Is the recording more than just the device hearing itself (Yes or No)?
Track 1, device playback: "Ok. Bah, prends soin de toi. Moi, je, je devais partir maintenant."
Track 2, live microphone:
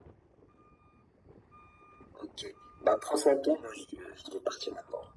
No